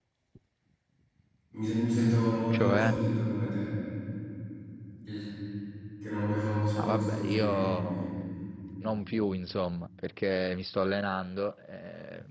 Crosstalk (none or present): present